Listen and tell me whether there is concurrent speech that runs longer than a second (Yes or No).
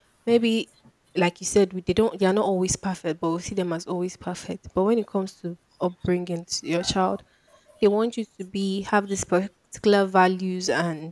No